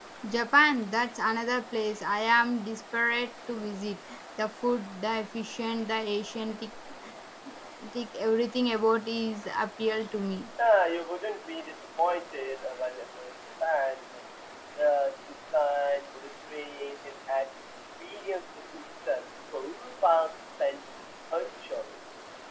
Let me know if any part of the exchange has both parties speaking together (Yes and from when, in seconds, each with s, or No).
No